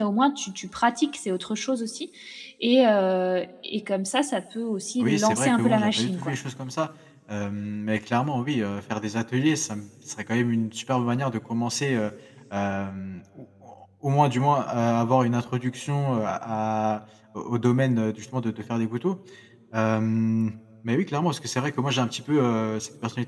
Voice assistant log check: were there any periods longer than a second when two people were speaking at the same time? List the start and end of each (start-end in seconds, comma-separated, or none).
5.0-6.3